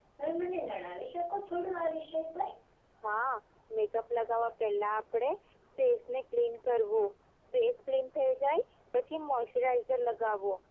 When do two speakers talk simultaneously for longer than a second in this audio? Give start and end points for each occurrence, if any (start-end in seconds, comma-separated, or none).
none